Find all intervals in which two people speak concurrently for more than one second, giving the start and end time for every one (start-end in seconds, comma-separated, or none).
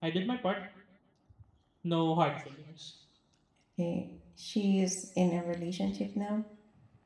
none